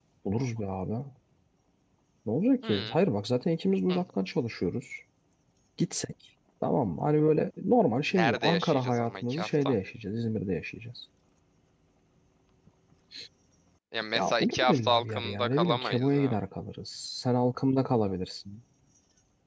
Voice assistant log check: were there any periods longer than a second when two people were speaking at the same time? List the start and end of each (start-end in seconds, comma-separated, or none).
8.1-9.7, 14.2-16.4